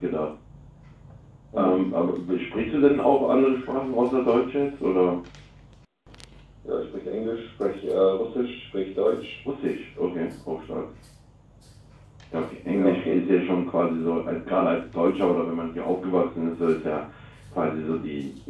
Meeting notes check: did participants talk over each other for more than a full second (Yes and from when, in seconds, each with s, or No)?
No